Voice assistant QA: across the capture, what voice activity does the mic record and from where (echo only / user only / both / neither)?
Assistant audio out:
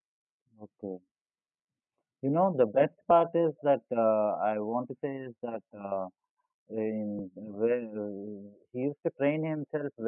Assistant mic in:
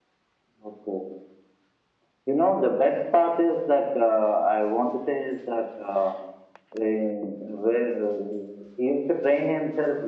echo only